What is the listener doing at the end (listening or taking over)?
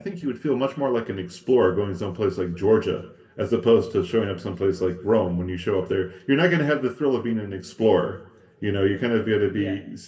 listening